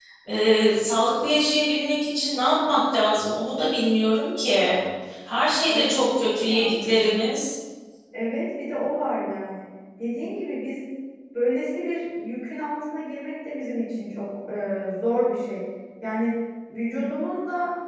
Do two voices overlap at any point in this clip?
Yes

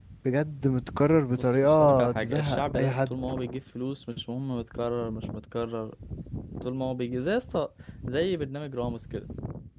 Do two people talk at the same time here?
Yes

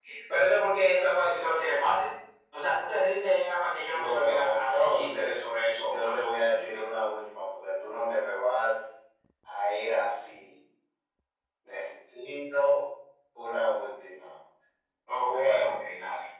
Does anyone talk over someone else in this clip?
Yes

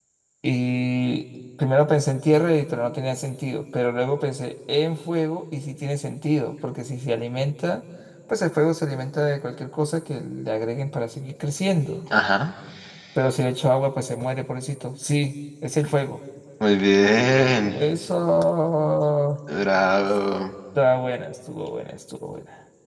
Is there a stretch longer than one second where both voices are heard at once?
No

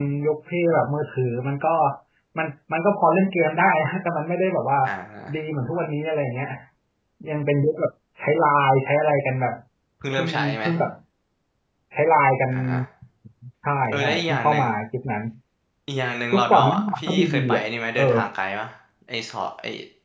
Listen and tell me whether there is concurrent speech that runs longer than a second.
Yes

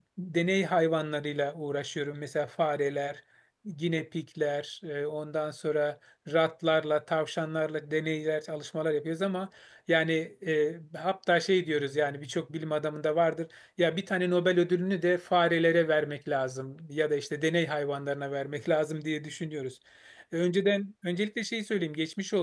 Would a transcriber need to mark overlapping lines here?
No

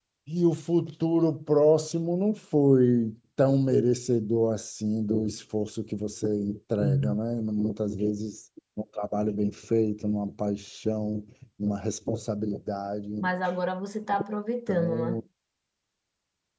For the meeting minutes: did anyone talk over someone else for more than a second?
No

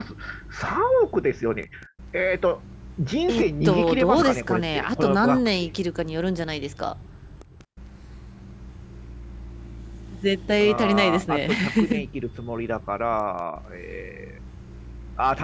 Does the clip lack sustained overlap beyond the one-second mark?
No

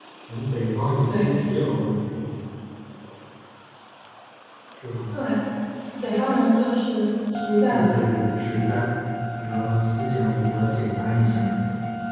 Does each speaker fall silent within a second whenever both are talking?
Yes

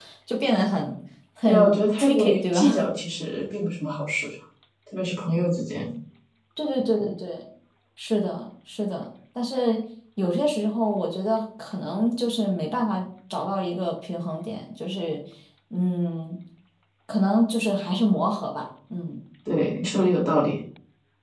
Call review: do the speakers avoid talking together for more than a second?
No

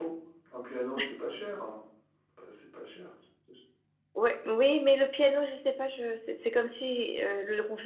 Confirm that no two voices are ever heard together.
Yes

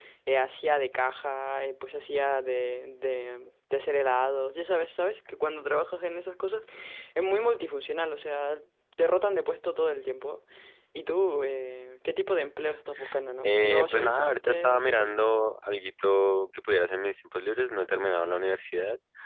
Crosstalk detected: Yes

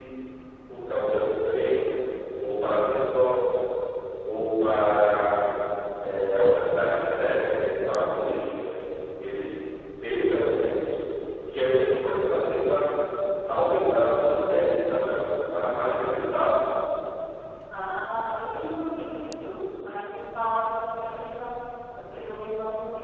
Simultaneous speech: No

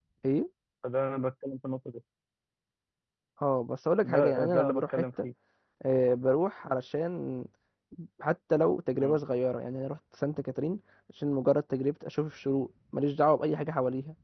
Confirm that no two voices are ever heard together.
No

